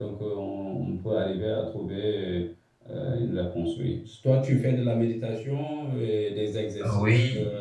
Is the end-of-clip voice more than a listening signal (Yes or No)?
Yes